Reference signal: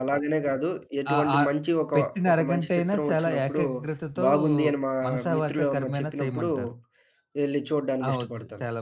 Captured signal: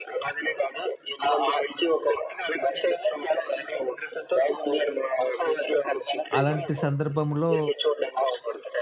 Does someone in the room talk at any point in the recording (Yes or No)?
Yes